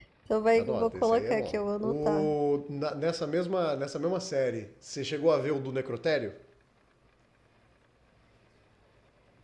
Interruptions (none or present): present